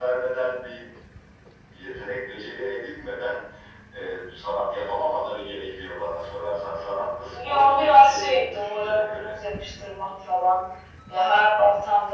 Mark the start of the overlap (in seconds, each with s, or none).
7.3 s